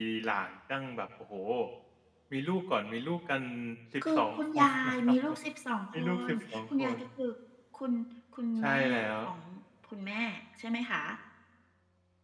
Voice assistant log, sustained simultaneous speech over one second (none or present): present